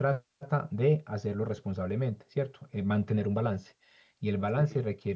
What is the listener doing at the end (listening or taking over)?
listening